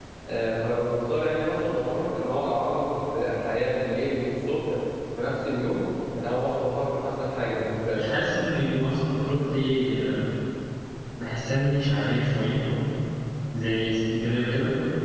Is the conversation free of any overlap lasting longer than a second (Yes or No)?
Yes